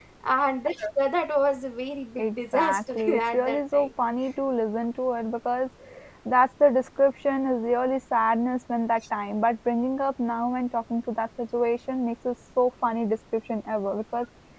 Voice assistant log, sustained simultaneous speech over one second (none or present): present